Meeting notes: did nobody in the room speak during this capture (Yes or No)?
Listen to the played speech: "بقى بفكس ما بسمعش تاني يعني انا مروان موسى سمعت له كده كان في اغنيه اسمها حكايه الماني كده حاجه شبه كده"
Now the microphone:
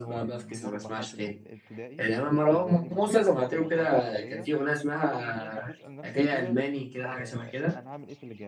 No